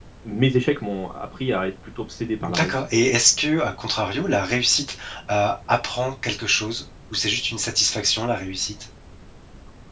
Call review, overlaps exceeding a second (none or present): none